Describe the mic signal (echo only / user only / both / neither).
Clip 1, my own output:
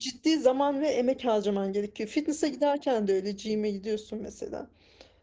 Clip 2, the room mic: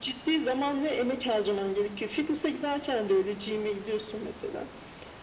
echo only